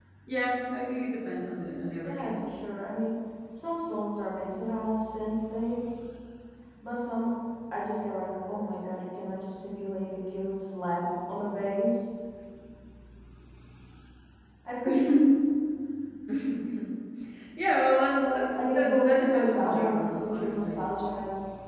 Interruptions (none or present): present